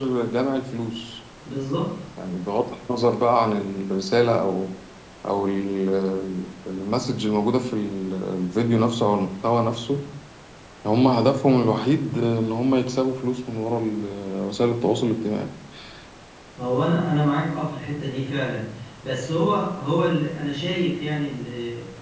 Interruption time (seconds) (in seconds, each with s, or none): none